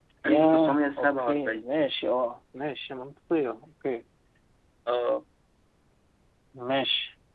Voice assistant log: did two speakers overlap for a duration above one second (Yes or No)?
Yes